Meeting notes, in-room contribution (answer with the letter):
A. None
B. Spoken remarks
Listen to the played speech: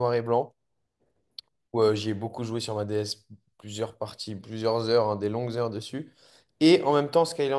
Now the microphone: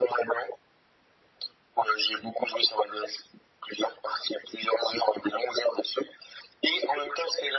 A